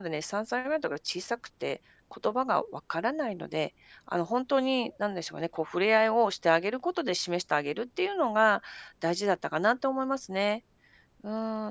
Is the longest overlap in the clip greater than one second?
No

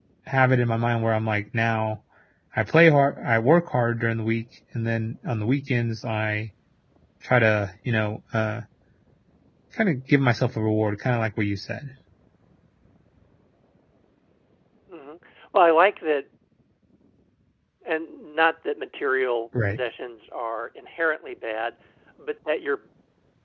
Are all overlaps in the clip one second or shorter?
Yes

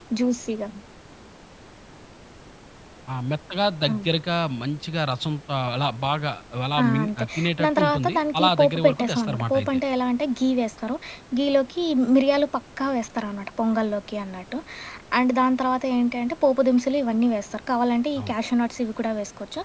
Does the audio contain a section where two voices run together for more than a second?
Yes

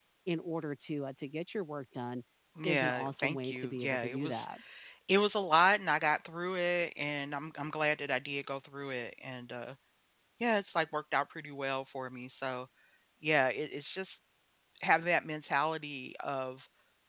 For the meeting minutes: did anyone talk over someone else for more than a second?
Yes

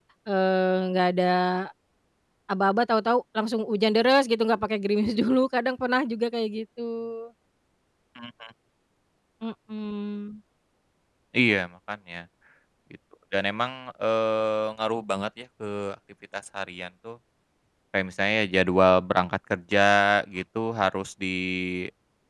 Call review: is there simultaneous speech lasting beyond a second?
No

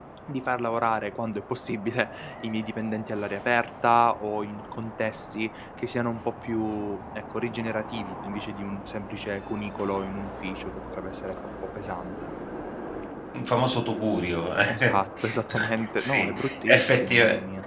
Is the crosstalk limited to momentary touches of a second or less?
No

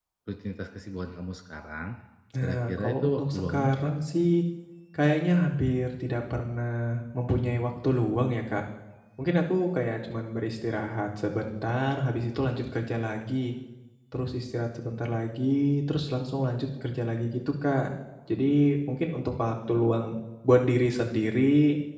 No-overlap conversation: No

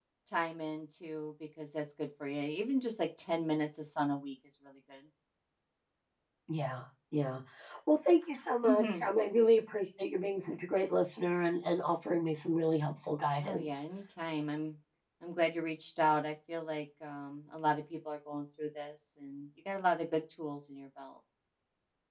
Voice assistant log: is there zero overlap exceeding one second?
Yes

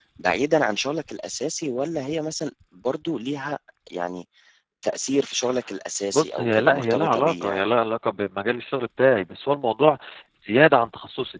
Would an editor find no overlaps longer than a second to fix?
No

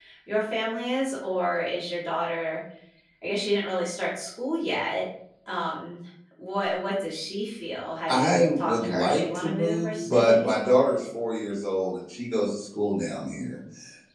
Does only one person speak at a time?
No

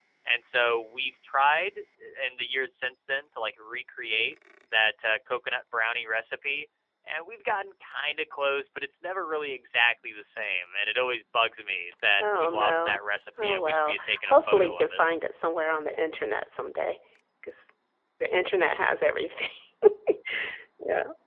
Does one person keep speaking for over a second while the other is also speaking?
Yes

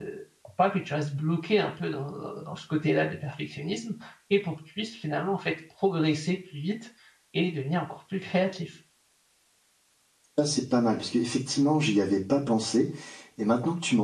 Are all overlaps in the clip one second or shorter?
Yes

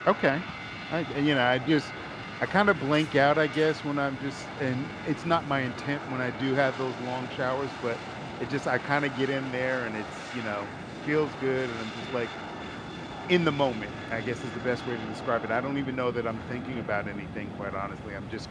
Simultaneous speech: No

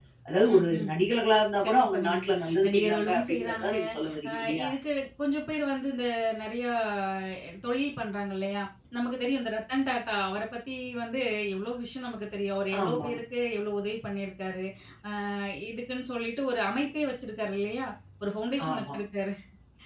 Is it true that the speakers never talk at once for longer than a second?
No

